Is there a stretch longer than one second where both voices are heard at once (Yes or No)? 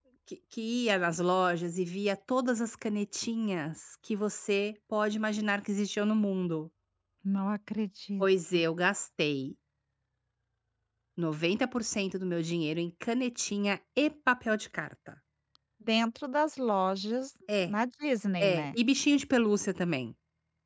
No